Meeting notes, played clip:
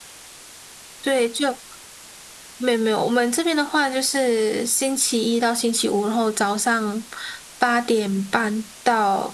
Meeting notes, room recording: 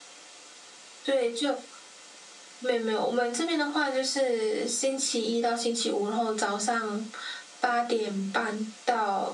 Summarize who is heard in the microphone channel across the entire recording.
echo only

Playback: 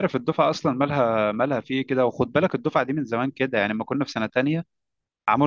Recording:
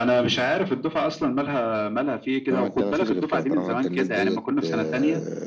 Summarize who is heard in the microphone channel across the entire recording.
both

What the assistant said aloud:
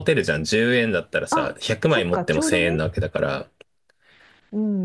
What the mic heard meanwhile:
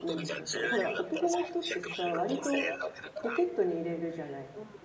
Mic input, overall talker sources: both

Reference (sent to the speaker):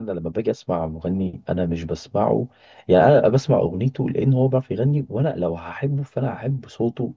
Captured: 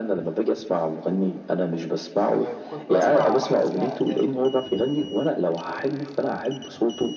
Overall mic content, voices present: both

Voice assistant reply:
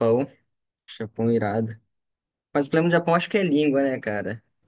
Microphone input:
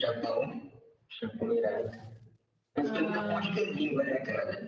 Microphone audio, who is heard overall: both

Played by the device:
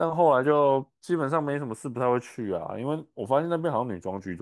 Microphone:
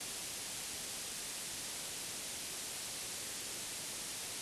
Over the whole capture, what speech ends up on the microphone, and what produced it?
neither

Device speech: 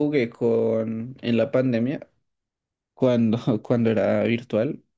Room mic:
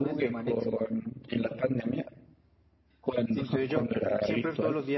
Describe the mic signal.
both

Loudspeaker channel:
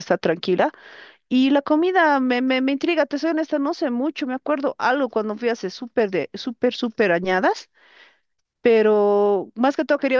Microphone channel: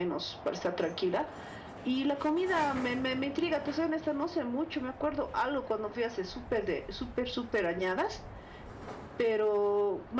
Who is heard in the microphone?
echo only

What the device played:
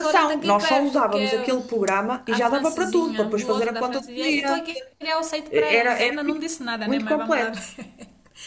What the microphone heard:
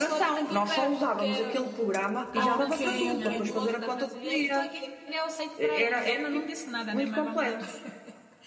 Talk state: both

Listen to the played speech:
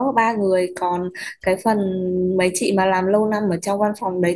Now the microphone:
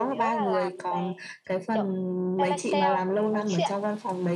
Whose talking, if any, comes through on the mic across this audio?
both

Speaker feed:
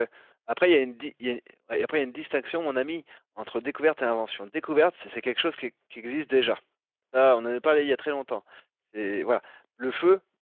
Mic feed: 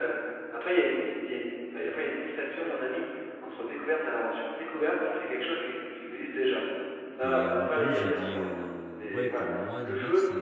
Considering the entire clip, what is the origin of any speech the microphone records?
both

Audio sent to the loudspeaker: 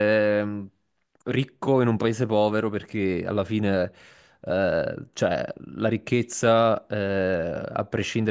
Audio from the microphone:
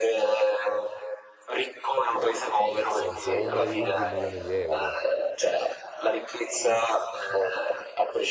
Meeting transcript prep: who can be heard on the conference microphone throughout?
both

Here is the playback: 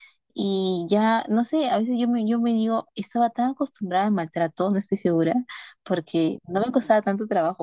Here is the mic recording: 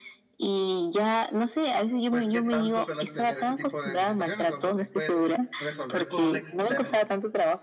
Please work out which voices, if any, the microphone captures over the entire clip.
both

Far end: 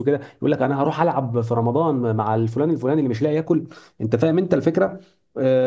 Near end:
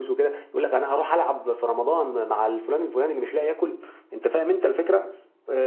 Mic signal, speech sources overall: echo only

